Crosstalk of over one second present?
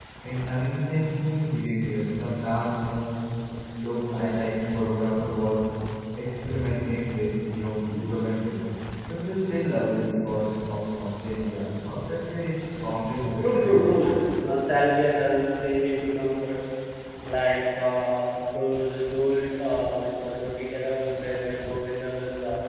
No

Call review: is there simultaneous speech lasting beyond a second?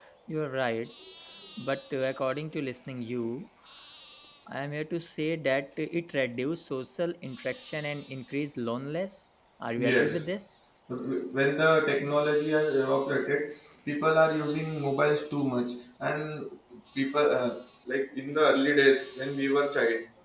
No

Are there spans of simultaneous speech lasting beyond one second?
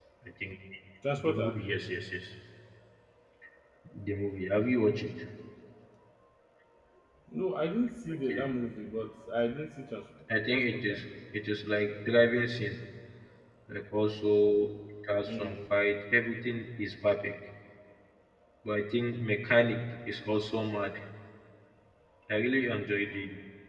No

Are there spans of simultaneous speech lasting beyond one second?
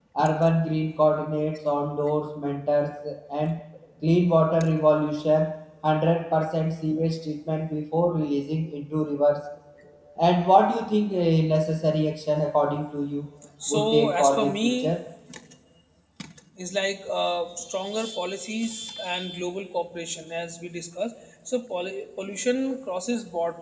Yes, from 13.7 s

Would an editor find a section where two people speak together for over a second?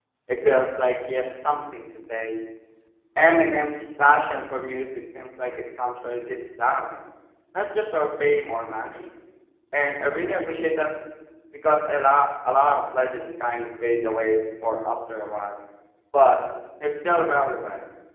No

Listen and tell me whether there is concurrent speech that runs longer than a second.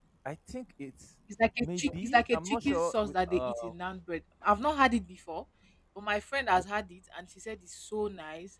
Yes, from 1.6 s

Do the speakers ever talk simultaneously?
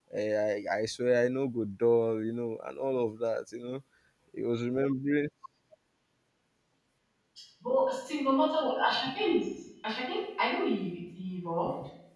No

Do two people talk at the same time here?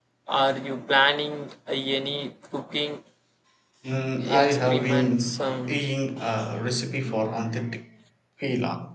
Yes, from 4.3 s

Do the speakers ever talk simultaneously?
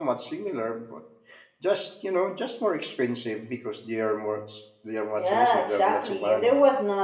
Yes, from 5.2 s

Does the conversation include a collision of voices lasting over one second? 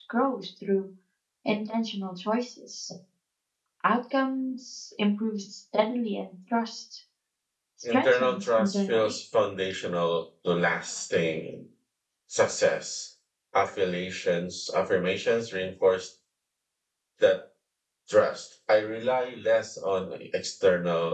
Yes, from 7.8 s

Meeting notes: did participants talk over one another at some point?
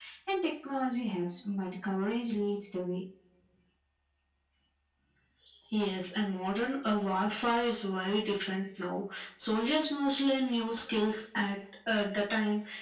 No

